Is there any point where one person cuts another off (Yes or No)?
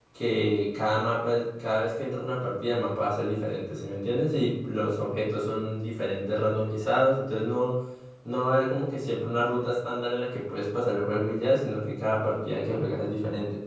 No